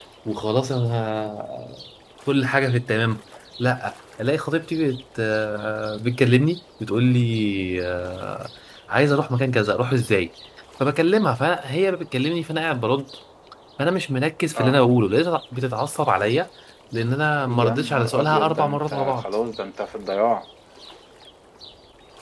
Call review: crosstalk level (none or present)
present